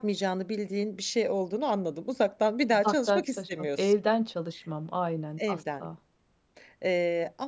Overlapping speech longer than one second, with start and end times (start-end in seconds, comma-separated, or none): 2.7-3.9